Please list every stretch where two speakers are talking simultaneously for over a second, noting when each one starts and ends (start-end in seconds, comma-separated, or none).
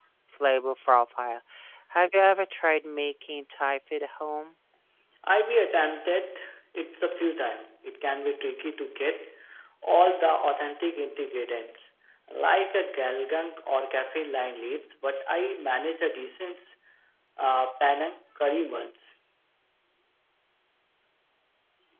none